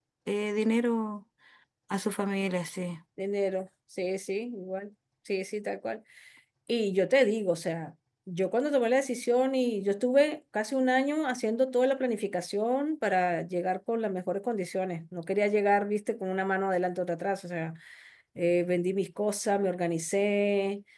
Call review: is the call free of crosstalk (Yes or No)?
Yes